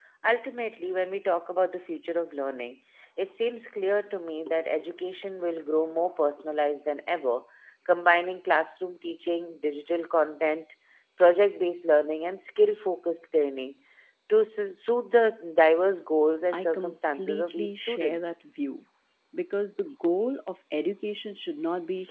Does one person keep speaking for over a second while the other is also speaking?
Yes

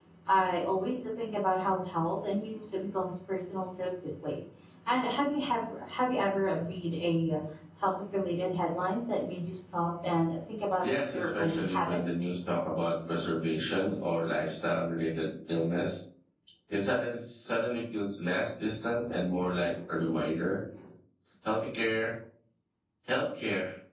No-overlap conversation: No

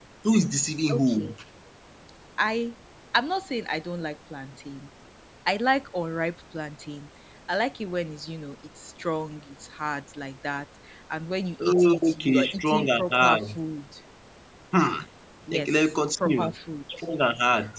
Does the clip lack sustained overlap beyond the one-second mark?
No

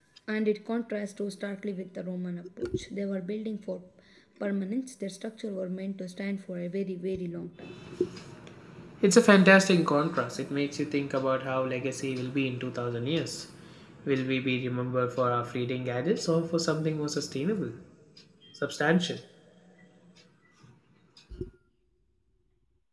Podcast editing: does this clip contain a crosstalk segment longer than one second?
No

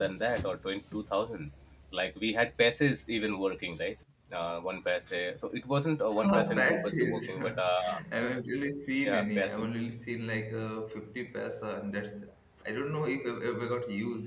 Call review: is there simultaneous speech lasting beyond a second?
Yes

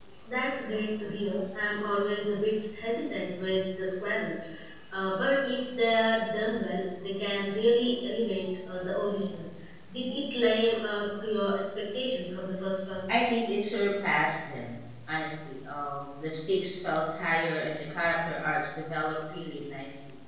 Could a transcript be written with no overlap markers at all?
Yes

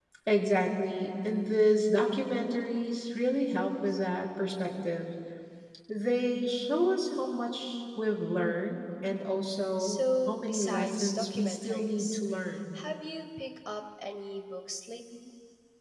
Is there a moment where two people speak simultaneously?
Yes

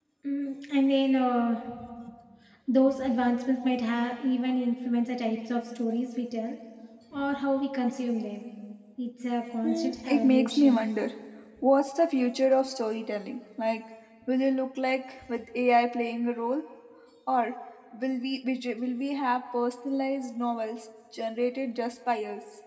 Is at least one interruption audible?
Yes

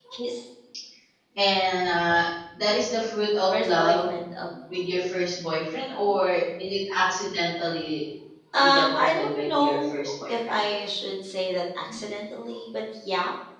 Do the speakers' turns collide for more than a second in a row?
Yes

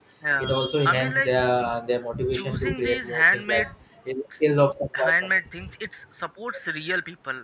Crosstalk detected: Yes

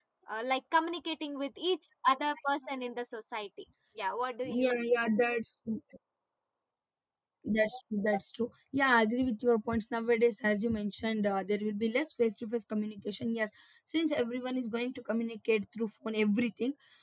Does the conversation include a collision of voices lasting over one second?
No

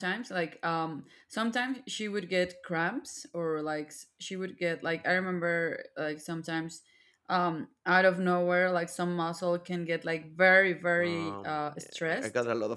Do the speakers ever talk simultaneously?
Yes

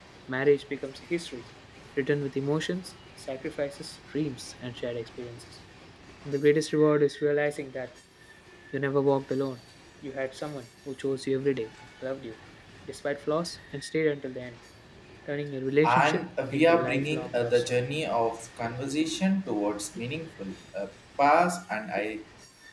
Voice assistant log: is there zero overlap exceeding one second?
No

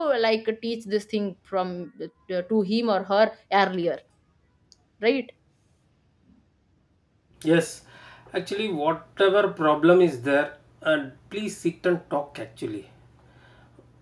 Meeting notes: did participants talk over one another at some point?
No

